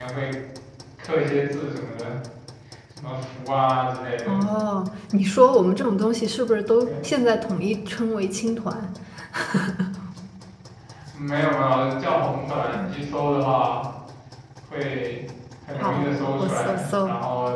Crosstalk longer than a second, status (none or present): present